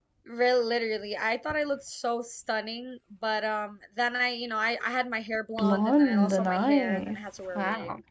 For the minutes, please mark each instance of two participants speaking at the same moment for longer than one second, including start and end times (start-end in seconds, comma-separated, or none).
5.6-7.2